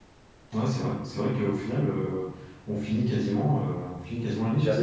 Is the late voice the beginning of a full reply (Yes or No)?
Yes